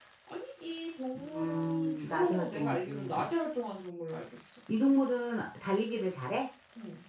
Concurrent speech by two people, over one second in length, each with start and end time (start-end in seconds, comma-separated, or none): 1.1-3.3